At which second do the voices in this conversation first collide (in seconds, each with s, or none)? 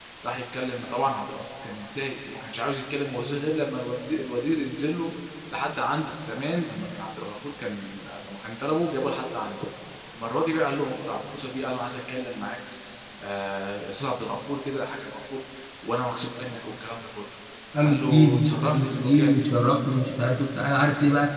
17.8 s